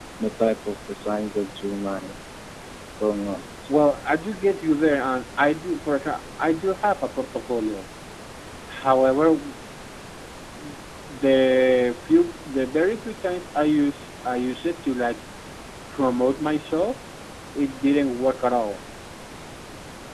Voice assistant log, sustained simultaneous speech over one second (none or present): none